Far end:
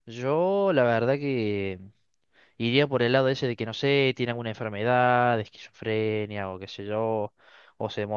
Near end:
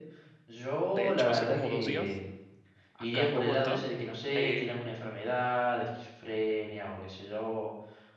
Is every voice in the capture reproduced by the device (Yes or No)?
No